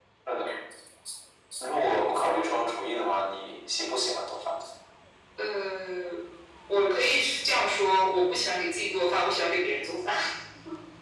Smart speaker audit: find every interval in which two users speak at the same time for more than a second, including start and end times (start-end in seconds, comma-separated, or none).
none